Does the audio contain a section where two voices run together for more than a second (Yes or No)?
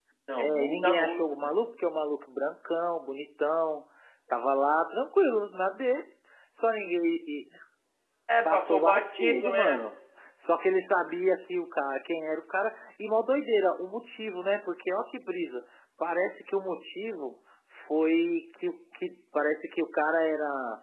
Yes